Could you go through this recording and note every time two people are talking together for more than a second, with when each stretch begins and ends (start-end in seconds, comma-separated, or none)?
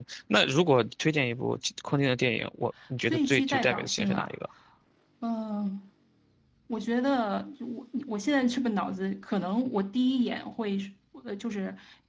3.1-4.3